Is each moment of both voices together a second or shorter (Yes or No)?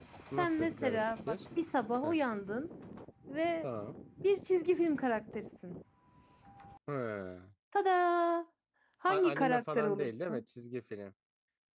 No